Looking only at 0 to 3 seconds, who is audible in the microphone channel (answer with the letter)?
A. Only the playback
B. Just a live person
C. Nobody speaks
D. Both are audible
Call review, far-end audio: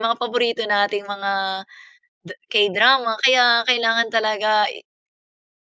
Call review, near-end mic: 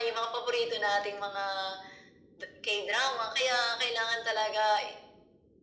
A